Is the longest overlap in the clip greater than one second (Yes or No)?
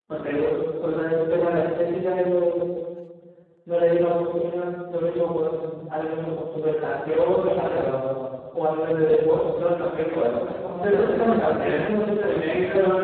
Yes